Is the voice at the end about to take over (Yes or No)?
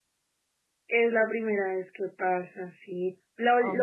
No